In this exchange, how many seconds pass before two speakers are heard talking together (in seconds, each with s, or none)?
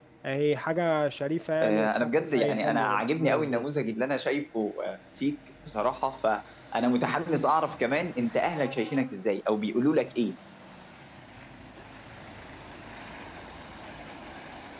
1.6 s